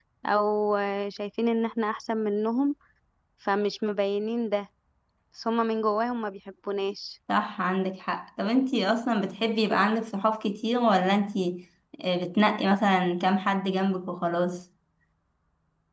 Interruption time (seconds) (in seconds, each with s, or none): none